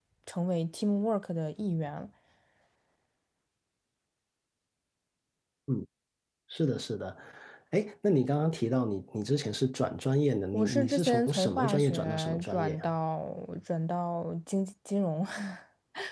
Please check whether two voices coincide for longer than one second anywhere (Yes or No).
Yes